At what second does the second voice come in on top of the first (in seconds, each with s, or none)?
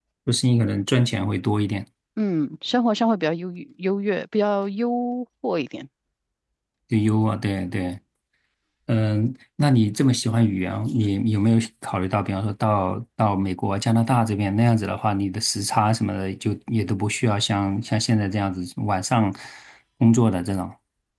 none